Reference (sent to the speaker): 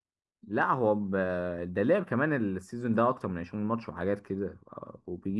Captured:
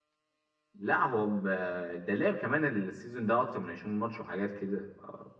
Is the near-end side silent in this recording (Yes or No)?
Yes